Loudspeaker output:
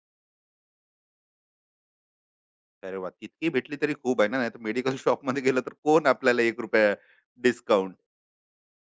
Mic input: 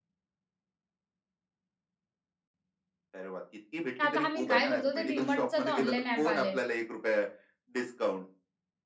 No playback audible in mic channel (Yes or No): No